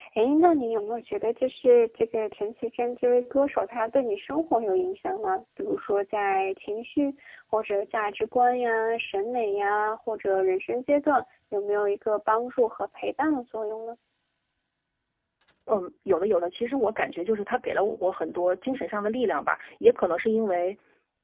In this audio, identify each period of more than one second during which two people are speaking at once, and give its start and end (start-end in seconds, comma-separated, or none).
none